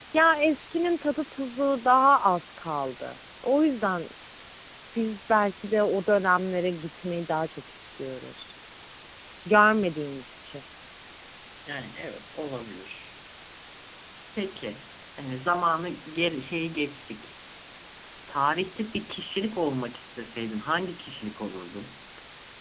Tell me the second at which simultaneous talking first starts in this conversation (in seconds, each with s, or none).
none